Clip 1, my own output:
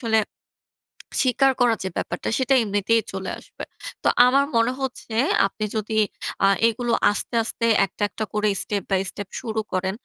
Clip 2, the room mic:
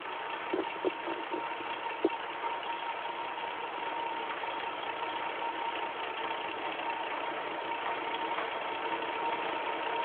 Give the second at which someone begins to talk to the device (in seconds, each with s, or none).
none